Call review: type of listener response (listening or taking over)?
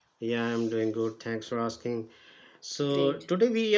listening